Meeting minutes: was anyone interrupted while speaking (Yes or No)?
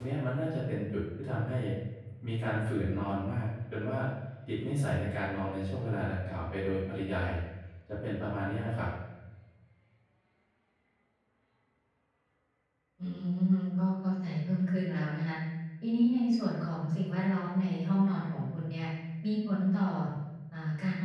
No